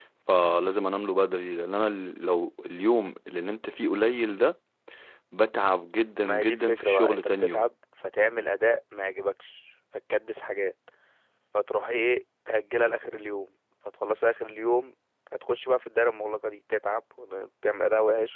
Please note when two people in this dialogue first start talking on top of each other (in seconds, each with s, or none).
6.2 s